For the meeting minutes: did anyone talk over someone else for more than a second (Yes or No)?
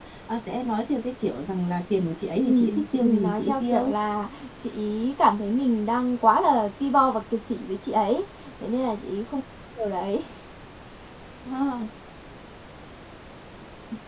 Yes